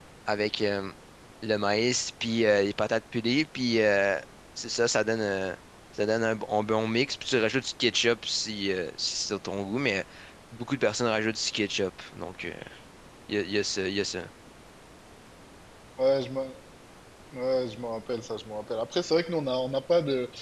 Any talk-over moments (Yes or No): No